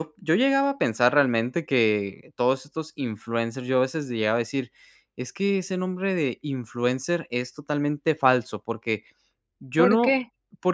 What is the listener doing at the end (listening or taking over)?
listening